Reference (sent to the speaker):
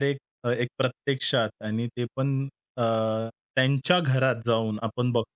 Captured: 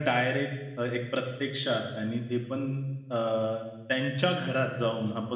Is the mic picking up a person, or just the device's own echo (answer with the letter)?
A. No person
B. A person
A